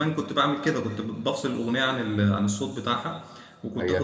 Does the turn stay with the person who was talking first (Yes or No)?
No